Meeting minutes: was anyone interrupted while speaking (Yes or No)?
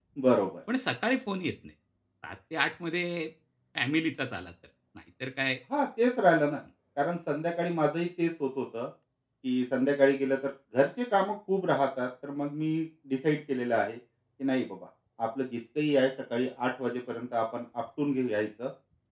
No